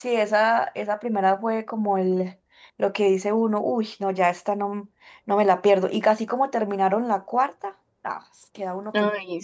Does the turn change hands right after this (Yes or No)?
Yes